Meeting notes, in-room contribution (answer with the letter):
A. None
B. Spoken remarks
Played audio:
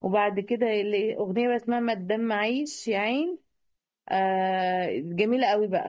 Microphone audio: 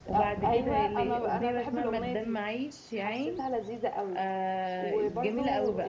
B